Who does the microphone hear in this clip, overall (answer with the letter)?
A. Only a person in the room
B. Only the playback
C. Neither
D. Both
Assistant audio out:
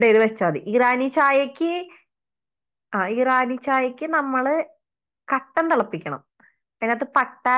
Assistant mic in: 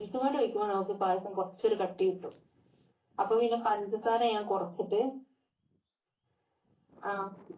A